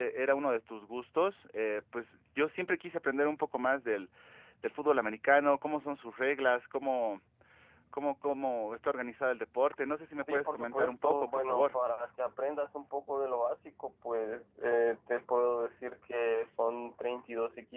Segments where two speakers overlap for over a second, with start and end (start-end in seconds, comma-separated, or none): 10.3-11.8